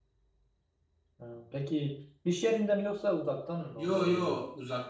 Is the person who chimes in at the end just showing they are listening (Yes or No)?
No